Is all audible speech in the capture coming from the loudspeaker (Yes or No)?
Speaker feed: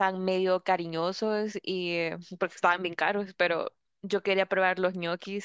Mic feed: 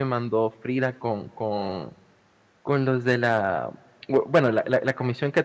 No